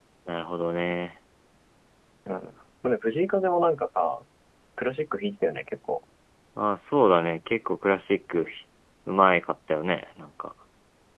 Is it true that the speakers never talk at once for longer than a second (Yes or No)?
Yes